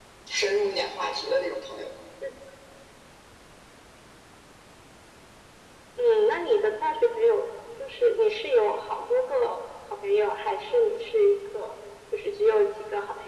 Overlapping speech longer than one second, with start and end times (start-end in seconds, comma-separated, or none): none